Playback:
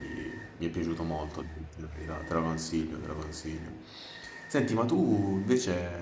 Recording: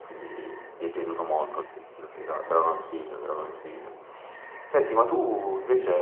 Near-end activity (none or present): none